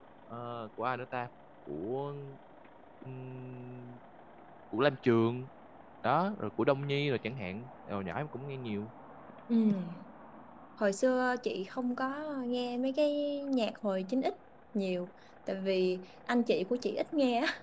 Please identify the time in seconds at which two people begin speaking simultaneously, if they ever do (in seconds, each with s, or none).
none